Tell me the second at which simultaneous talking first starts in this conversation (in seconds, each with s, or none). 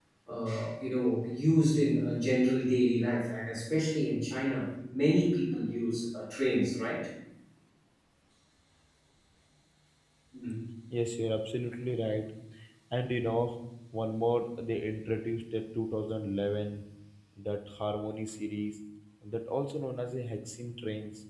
none